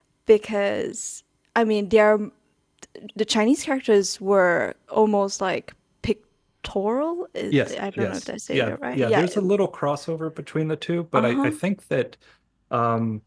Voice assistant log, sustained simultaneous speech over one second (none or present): present